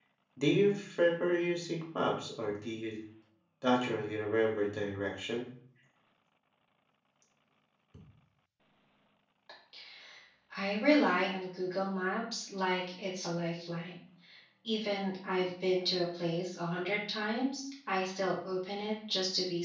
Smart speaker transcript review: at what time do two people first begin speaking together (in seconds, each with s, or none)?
none